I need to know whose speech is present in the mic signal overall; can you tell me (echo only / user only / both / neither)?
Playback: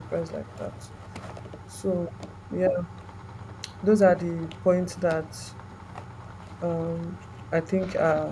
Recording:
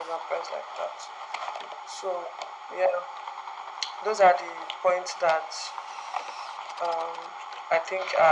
echo only